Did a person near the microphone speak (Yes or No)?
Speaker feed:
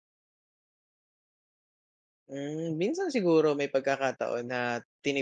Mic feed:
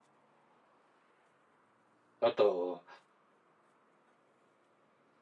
Yes